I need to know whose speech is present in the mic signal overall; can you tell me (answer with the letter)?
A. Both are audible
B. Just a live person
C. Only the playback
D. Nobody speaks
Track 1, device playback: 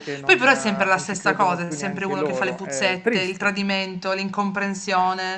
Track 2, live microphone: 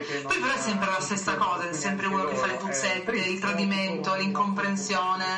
A